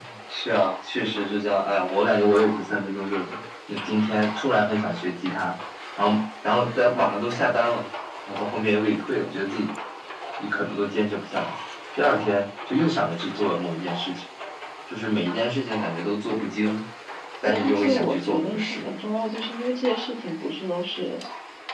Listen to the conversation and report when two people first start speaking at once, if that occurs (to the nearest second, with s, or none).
17 s